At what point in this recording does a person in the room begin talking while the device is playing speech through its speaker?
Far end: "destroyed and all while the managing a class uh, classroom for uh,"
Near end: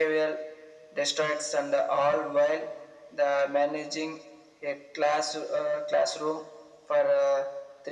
none

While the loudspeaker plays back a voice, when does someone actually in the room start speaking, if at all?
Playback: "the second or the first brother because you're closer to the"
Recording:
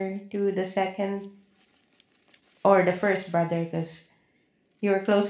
none

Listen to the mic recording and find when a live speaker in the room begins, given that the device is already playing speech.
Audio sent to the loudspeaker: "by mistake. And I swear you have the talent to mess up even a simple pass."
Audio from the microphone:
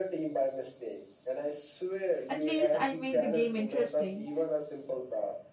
2.3 s

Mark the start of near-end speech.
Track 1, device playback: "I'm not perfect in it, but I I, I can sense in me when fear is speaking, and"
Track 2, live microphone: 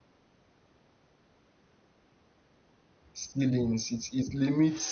3.1 s

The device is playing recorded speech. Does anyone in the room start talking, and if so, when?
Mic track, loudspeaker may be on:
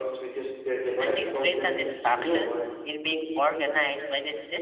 0.9 s

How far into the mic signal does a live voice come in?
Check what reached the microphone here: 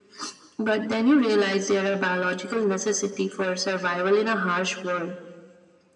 none

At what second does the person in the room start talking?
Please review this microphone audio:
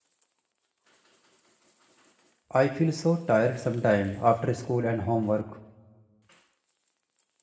2.6 s

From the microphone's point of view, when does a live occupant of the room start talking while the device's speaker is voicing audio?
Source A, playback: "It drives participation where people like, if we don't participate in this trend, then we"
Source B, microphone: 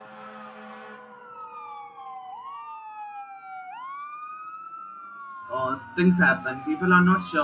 5.5 s

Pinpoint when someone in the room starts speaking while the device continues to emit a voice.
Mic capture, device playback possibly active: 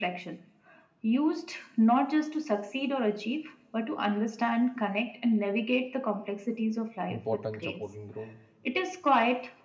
7.1 s

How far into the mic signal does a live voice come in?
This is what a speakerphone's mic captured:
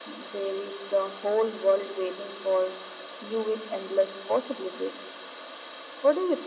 none

